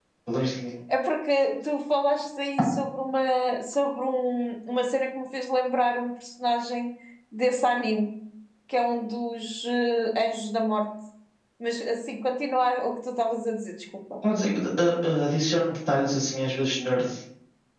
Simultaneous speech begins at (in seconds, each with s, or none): none